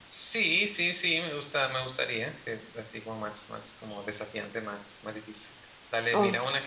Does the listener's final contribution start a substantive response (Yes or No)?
No